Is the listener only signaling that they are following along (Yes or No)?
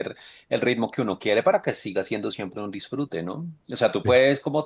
Yes